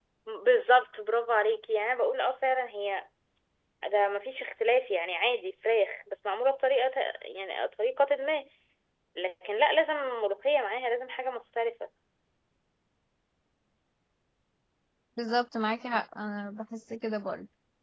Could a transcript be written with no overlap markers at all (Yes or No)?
Yes